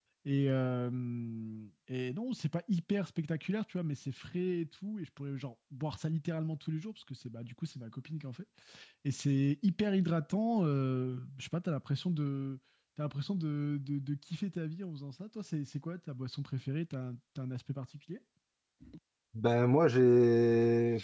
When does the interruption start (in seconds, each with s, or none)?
none